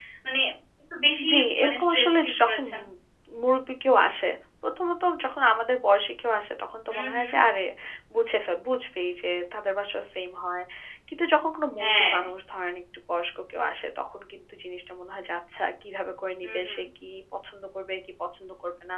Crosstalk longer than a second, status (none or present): present